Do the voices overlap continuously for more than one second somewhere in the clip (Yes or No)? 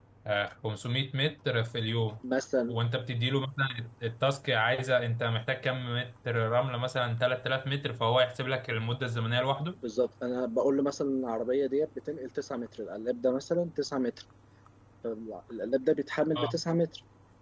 No